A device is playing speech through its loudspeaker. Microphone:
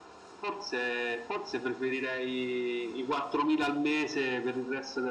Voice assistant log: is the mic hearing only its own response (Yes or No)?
Yes